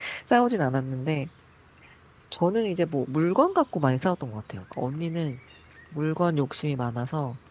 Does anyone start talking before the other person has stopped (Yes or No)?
No